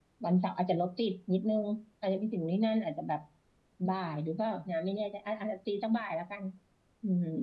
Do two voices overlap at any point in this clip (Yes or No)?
No